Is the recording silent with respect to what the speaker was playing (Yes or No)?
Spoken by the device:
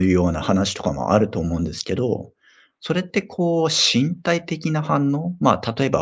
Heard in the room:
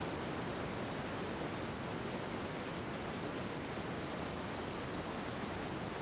Yes